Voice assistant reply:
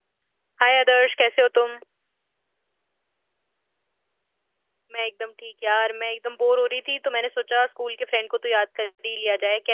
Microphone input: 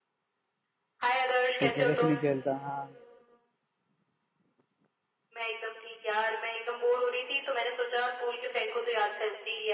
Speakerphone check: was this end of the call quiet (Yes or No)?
No